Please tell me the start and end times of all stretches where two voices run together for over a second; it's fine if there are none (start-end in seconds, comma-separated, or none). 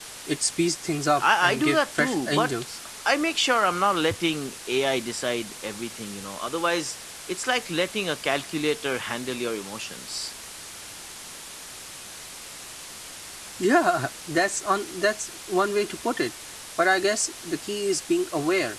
1.2-2.5